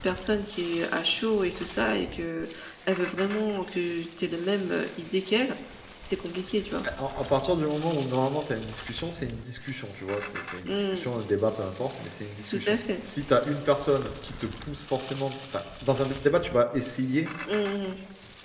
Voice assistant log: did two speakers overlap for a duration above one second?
No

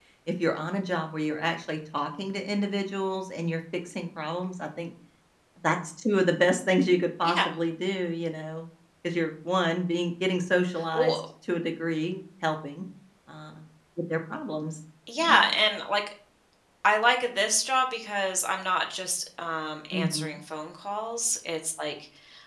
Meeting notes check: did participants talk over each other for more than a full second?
No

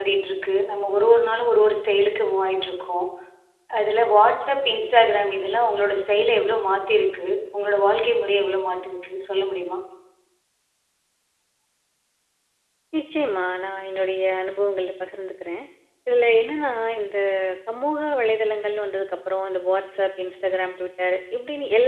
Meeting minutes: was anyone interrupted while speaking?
No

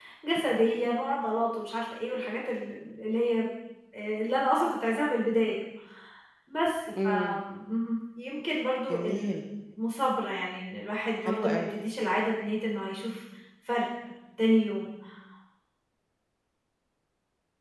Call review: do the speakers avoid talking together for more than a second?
Yes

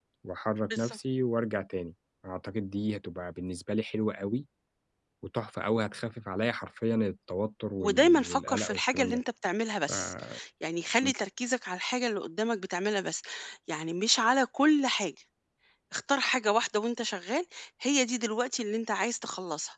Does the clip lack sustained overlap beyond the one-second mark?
No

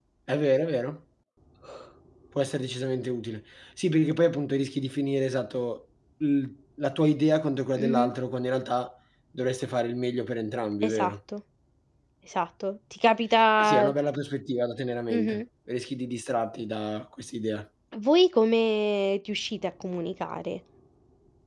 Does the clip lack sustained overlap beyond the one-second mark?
Yes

